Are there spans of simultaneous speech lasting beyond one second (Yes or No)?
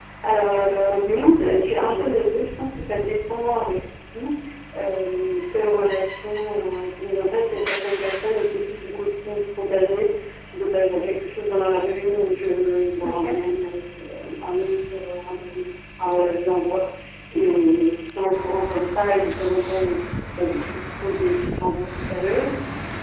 Yes